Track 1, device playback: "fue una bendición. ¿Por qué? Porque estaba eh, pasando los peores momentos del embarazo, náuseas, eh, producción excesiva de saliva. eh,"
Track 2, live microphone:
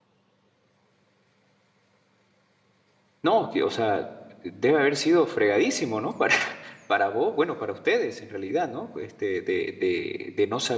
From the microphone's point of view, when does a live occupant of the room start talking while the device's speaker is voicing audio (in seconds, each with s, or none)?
3.2 s